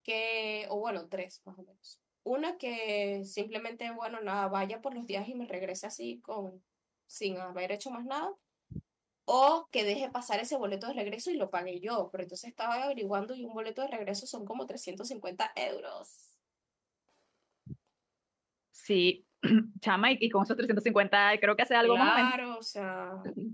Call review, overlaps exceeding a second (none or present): none